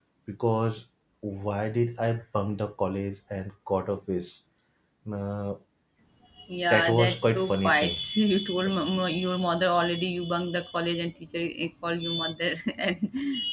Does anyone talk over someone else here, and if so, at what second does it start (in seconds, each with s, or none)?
6.7 s